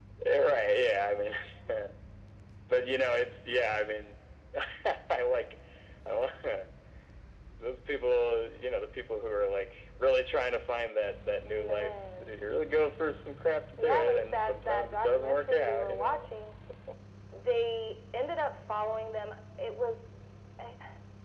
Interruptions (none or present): present